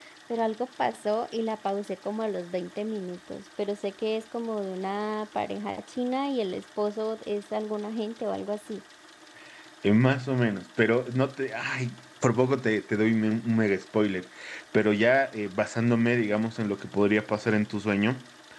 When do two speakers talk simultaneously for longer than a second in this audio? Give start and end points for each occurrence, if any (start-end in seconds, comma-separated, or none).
none